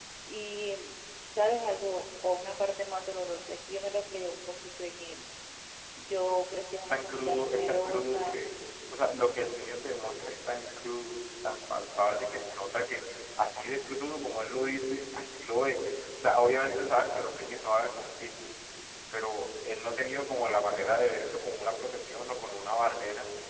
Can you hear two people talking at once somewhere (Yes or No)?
Yes